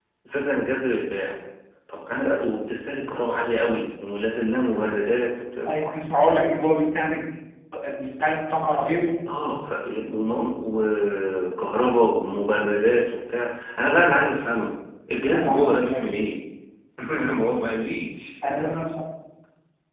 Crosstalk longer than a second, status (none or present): none